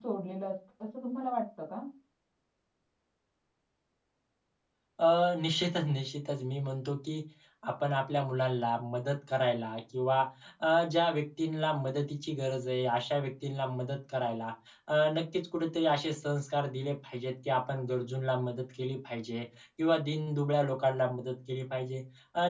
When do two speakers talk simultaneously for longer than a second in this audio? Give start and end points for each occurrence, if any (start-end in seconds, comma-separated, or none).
none